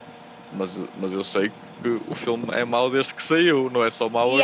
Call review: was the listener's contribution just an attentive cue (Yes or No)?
No